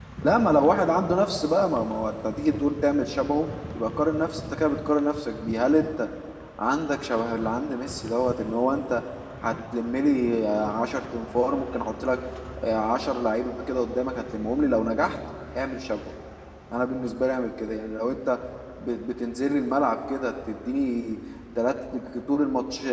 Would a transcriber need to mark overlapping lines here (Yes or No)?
No